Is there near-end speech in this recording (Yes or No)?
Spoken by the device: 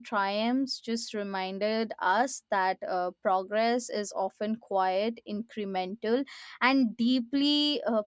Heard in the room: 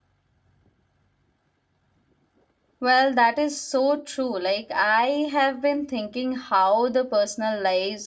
Yes